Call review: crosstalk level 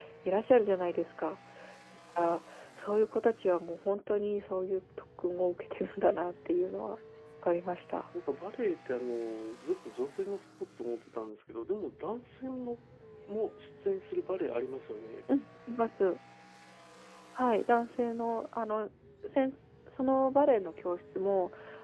none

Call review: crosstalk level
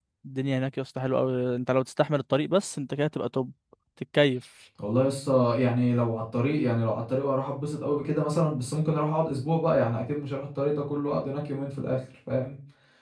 none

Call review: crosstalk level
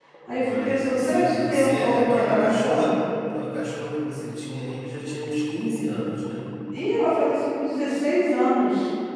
present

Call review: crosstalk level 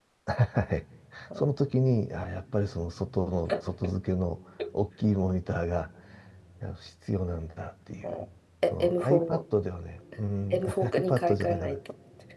present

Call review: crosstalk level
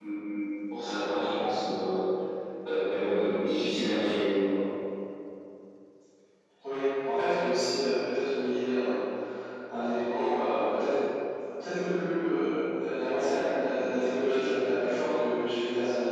none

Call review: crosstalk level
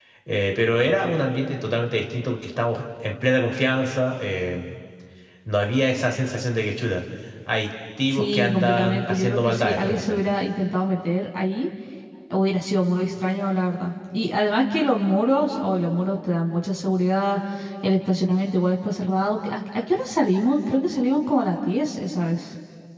present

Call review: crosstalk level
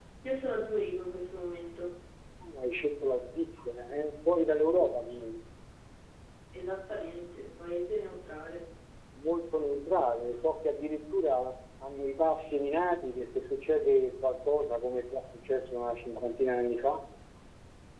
none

